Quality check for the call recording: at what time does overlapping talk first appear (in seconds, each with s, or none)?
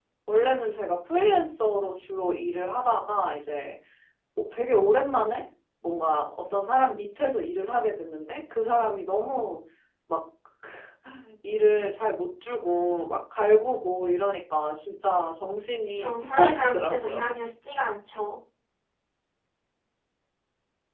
15.9 s